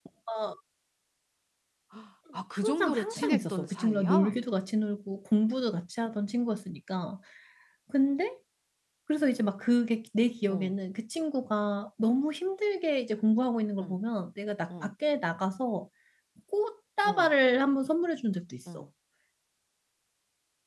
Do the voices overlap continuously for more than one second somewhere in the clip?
Yes, from 2.6 s

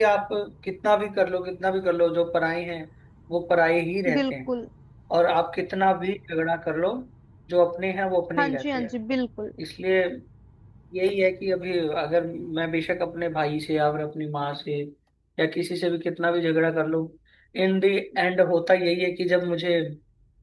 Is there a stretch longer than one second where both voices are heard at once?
No

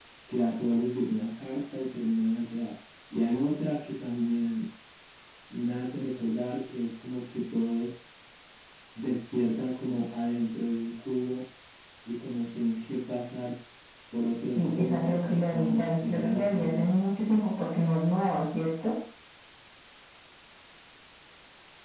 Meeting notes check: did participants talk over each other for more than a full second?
Yes, from 14.6 s

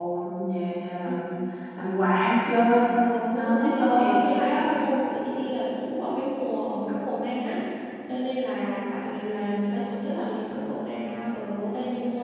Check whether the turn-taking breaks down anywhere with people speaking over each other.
Yes, from 3.4 s

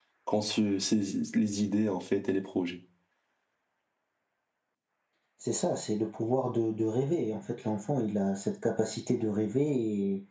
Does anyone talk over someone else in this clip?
No

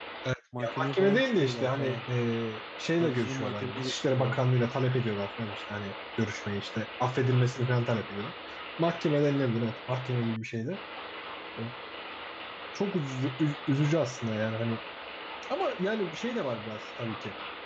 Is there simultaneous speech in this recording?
Yes, from 0.6 s

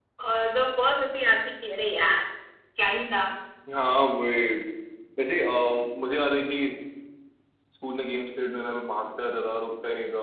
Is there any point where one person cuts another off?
No

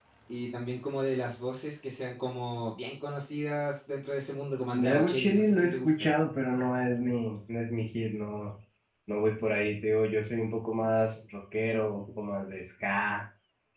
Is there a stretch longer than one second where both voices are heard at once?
Yes, from 4.7 s

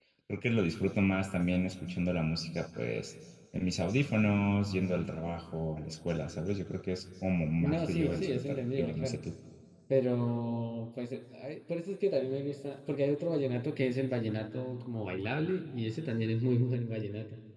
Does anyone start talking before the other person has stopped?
Yes, from 7.6 s

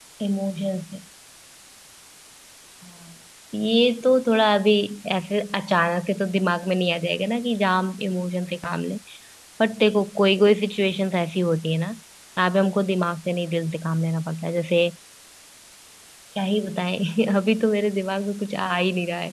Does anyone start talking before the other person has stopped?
No

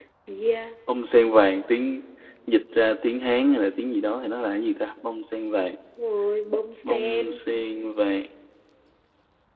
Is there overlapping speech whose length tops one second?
No

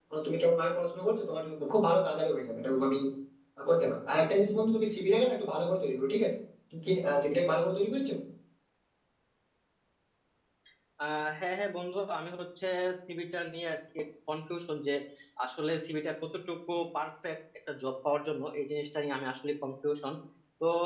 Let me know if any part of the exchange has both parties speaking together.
No

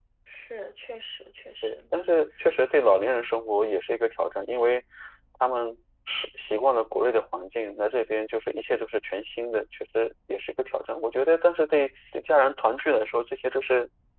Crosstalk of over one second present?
No

